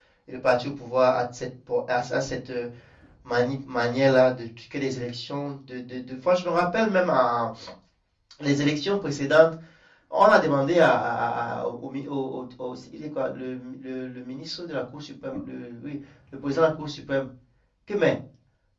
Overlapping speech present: No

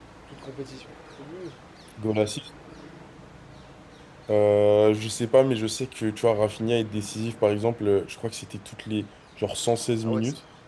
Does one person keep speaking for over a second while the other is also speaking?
No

